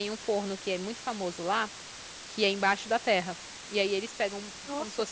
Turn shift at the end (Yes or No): No